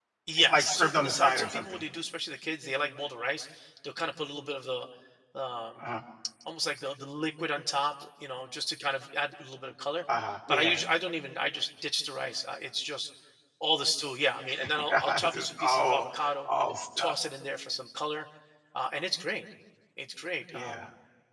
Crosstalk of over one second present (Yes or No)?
Yes